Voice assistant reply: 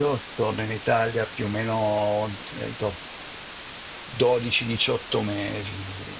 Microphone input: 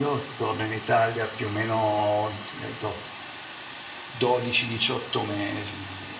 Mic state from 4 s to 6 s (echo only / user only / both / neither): echo only